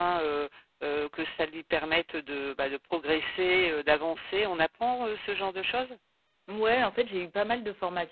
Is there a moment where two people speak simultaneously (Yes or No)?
No